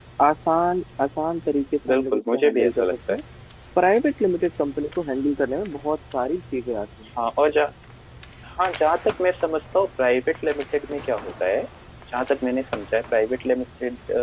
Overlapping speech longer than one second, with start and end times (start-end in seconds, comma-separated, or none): 1.9-3.2